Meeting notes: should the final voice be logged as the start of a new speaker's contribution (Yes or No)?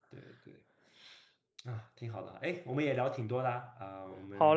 Yes